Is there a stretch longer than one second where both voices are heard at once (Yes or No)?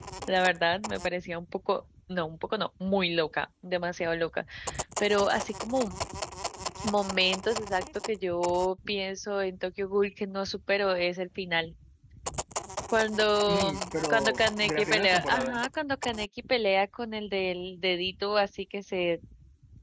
Yes